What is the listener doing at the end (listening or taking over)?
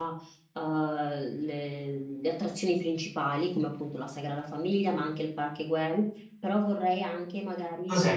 taking over